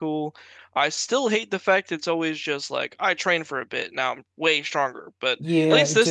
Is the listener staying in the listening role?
No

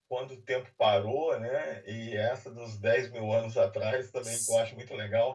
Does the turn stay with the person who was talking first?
Yes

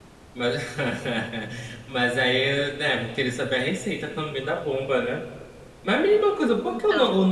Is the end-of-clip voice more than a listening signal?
No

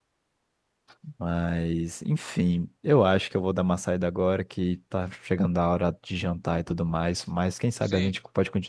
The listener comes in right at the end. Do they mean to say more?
No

